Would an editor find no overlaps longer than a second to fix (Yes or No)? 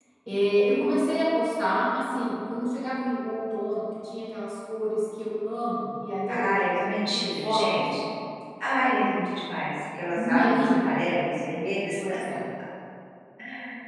No